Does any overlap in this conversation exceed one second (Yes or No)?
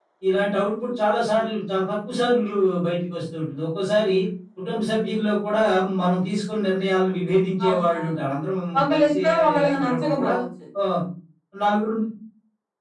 Yes